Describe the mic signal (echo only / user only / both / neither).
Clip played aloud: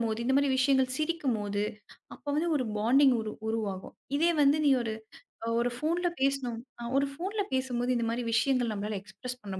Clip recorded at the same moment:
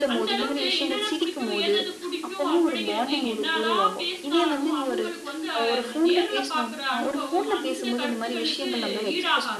both